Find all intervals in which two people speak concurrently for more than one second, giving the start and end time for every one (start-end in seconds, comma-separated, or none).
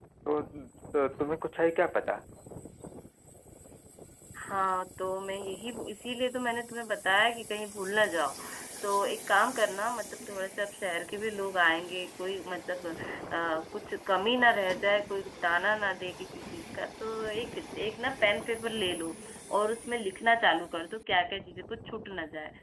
none